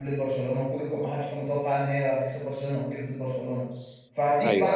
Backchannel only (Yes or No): Yes